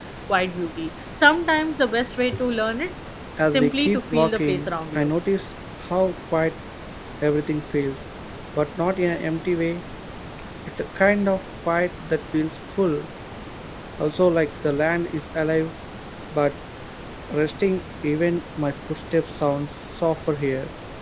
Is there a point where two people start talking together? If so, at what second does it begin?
3.4 s

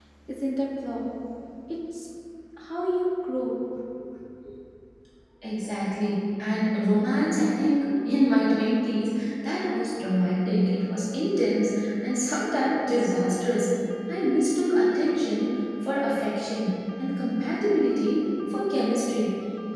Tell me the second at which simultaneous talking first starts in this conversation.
none

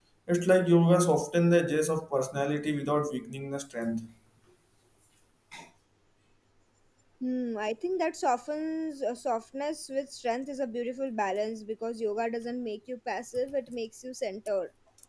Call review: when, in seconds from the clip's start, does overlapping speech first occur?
none

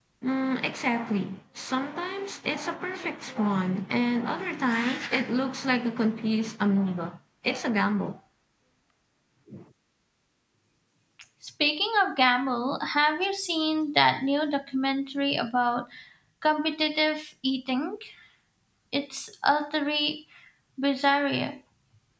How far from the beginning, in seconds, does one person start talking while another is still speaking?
none

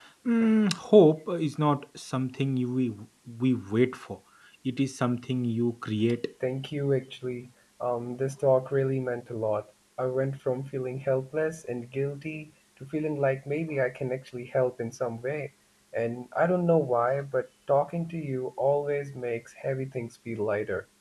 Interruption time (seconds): none

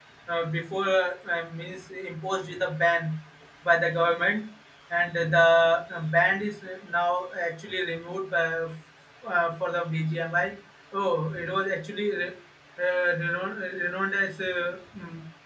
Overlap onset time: none

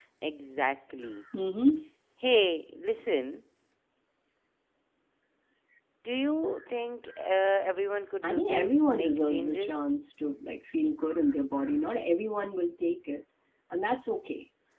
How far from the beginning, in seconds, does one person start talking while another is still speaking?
8.2 s

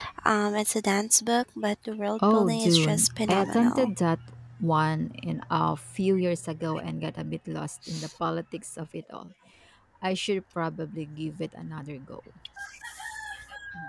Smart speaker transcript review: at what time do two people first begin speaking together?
2.2 s

